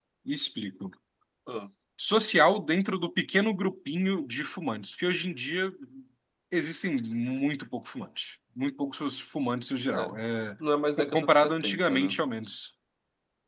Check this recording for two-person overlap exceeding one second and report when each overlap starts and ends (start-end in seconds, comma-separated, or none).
11.0-12.2